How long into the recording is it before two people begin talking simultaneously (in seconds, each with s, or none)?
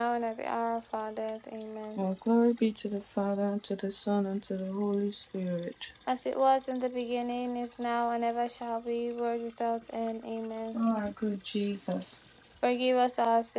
none